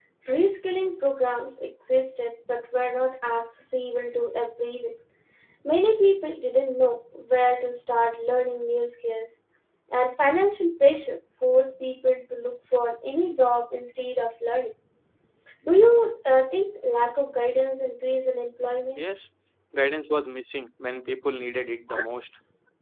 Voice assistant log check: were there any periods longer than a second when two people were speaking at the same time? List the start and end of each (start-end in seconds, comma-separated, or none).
none